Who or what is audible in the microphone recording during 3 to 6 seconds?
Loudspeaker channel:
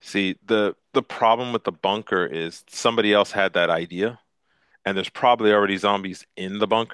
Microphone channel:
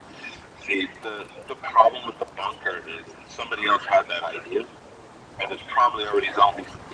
echo only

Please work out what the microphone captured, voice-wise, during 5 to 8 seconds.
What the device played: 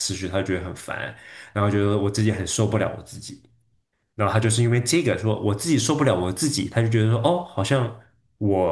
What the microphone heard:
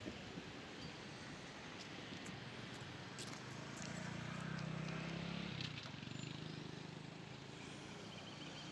neither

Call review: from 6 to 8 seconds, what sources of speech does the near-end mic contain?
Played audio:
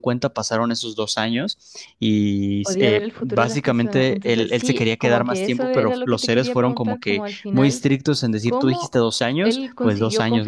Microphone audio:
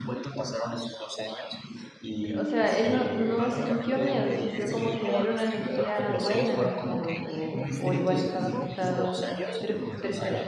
both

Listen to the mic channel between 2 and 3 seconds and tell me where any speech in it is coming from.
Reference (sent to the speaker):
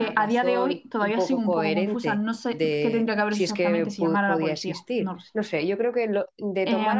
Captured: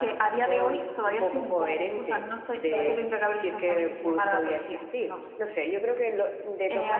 both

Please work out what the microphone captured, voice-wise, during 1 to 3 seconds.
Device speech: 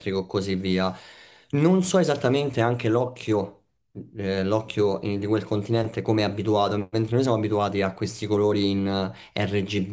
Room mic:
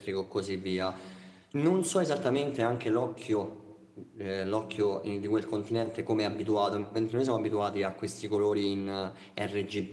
echo only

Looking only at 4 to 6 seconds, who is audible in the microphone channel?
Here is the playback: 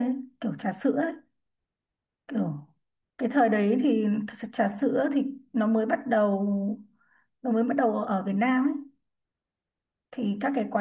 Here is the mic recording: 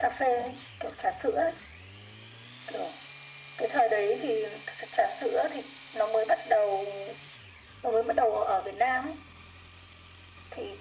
echo only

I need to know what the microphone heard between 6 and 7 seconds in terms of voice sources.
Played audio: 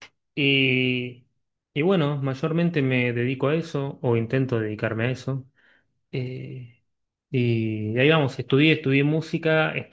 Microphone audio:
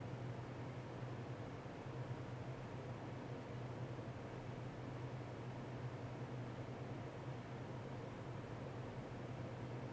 neither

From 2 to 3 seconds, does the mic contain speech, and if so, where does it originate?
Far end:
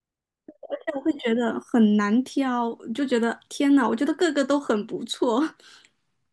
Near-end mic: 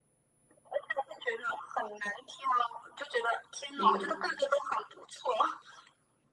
echo only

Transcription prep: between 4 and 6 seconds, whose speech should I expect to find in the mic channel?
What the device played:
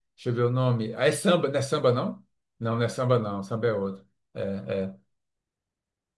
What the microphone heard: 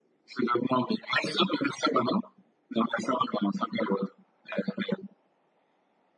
echo only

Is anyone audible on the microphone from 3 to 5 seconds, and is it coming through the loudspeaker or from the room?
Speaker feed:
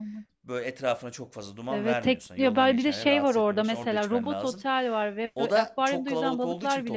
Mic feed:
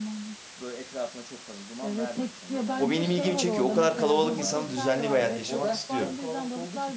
both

